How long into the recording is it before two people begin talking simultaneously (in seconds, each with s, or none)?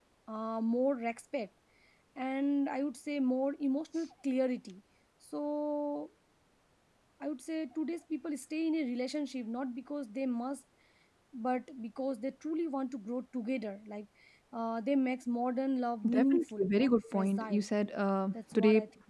16.1 s